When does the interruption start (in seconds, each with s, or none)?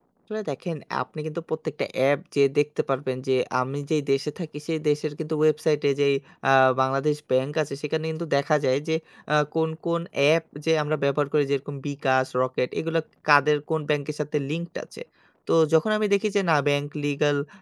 none